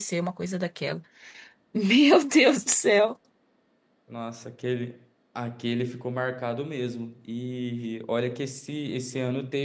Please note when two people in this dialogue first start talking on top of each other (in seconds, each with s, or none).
none